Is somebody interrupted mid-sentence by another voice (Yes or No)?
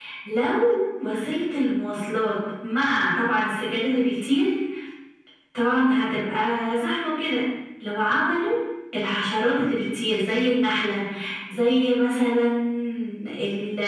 No